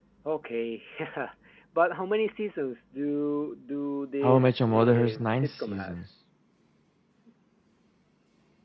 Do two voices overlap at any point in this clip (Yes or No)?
Yes